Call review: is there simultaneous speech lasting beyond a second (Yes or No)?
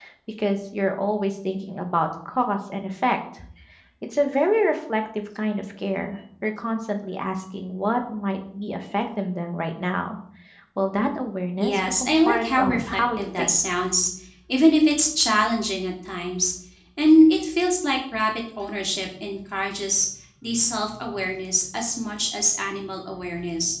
Yes